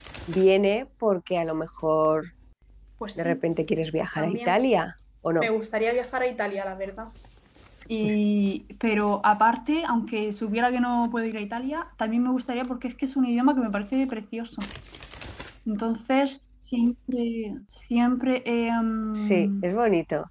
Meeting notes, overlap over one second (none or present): none